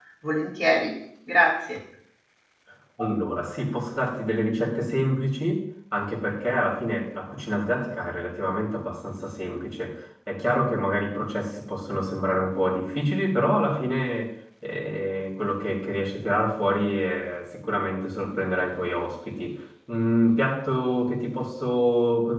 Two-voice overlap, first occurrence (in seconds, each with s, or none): none